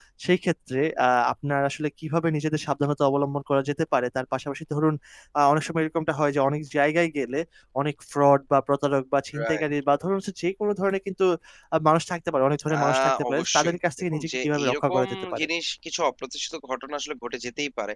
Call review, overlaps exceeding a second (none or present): present